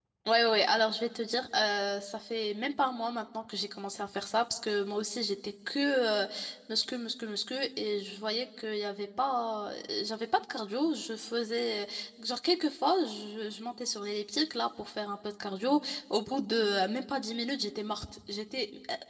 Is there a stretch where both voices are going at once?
No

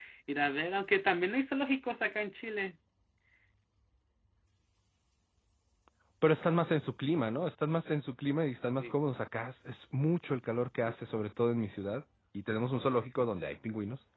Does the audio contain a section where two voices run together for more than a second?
No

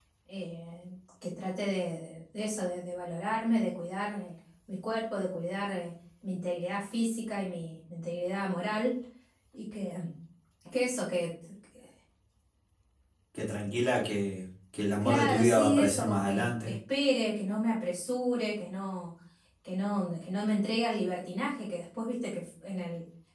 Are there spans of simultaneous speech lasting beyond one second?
Yes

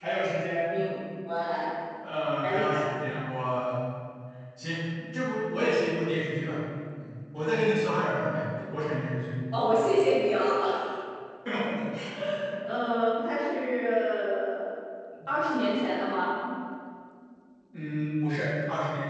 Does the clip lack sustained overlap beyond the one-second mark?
Yes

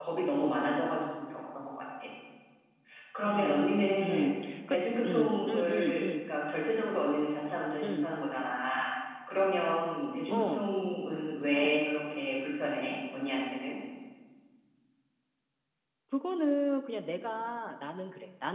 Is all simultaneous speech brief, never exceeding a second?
No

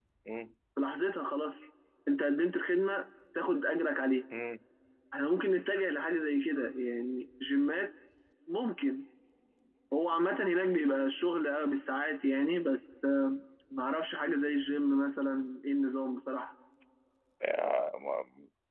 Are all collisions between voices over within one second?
Yes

